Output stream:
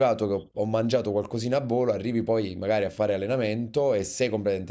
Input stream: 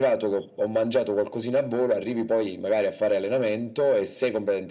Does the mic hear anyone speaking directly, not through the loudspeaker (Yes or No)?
No